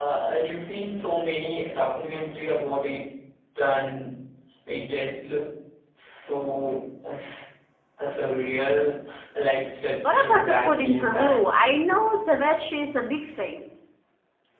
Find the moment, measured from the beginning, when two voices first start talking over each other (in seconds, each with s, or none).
10.0 s